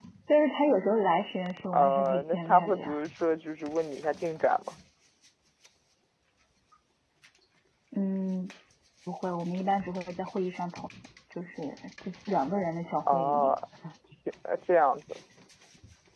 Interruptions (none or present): present